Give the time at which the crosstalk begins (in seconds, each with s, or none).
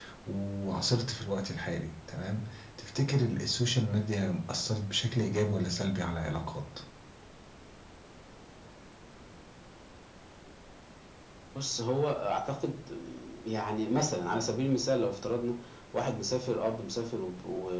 none